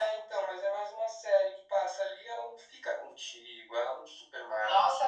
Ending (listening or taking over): taking over